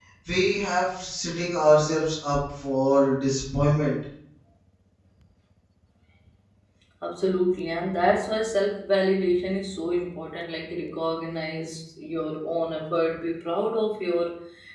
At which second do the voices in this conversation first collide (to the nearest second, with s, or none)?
none